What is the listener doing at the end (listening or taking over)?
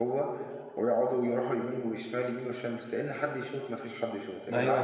taking over